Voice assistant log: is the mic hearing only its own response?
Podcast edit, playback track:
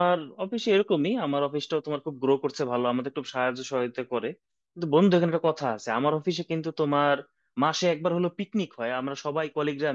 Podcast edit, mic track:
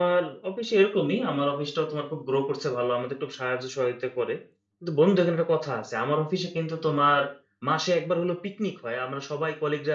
Yes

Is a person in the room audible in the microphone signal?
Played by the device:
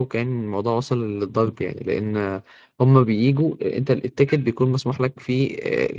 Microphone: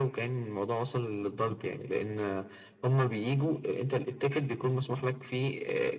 No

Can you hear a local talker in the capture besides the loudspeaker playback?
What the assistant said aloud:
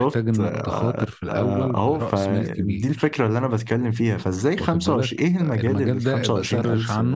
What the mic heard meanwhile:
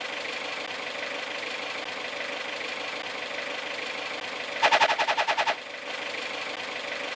No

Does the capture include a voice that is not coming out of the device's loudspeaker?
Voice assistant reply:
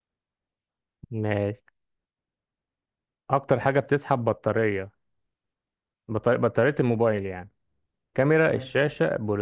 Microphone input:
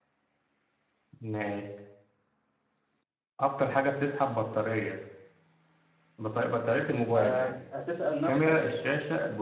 Yes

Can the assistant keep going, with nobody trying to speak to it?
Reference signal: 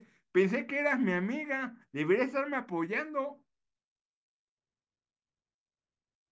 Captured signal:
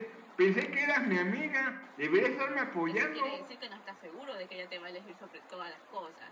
No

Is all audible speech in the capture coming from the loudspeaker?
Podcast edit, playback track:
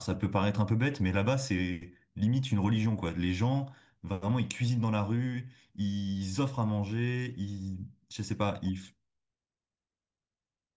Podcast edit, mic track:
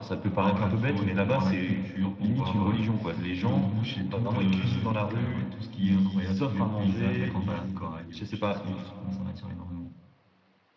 No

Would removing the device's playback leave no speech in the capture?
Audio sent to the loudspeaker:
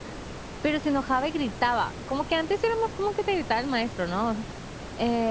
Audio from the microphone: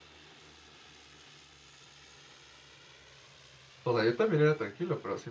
No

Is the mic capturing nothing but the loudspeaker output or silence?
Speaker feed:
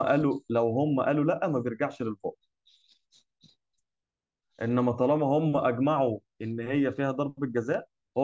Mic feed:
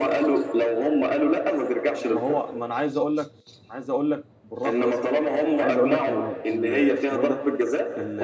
No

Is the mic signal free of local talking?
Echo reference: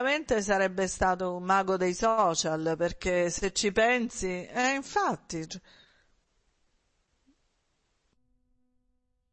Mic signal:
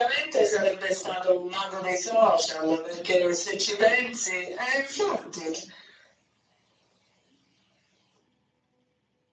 Yes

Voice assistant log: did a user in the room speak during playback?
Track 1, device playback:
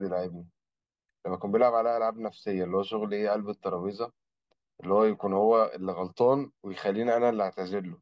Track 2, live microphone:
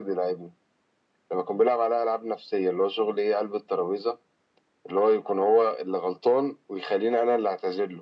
No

